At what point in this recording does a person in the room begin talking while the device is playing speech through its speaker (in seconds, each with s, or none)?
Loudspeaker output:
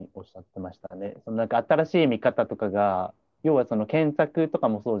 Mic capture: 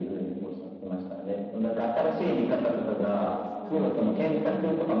3.2 s